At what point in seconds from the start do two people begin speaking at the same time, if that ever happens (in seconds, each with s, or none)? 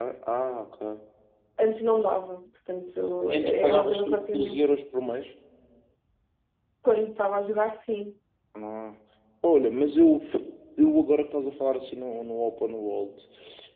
3.2 s